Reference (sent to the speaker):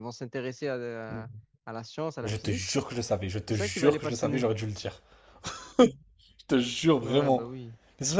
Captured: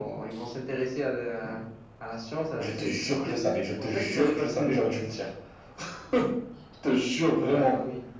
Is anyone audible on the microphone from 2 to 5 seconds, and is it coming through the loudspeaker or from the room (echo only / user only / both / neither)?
both